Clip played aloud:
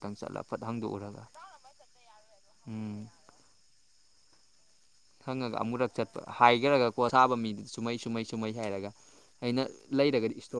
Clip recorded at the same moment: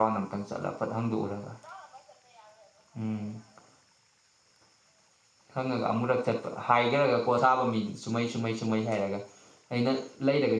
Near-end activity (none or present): none